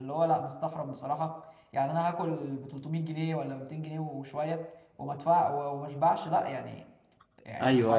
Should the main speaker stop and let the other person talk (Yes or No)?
Yes